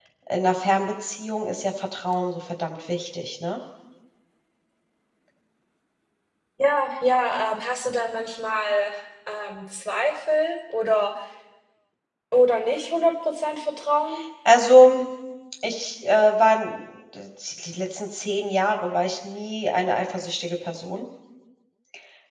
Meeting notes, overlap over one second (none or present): none